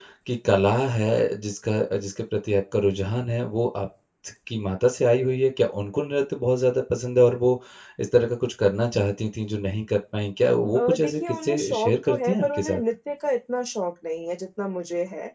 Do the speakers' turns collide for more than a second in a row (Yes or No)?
Yes